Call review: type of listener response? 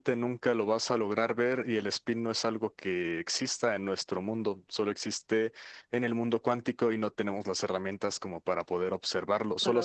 listening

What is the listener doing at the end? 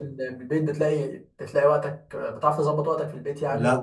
taking over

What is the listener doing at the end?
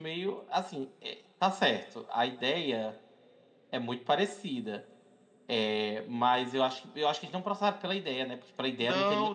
taking over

